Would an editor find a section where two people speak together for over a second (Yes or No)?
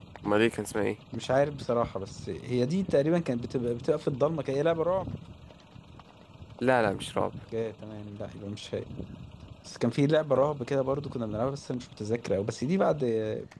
No